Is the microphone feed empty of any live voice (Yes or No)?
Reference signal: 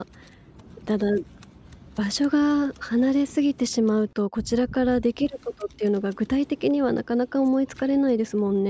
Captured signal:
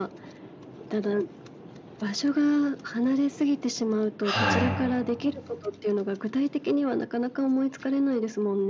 No